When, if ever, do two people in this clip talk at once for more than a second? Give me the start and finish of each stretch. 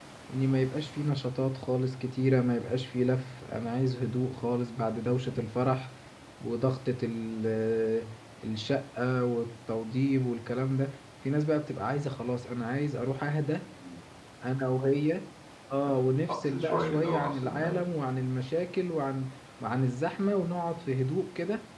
16.3-17.8

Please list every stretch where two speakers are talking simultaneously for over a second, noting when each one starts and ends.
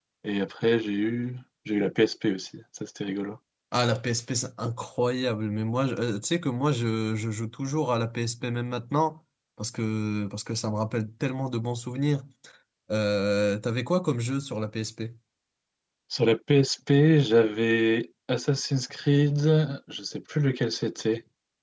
none

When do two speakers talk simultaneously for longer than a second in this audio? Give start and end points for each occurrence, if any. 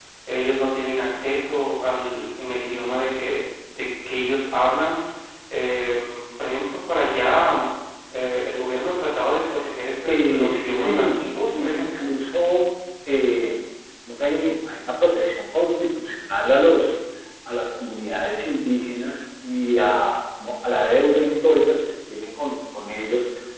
10.1-12.1

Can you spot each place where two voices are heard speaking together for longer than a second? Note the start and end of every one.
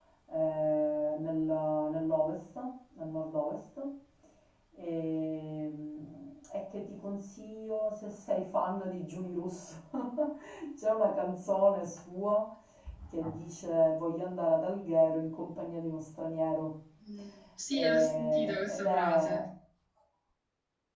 17.7-19.4

